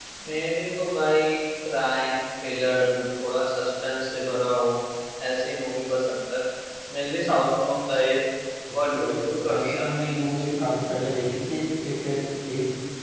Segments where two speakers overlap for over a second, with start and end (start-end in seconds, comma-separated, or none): 8.7-10.5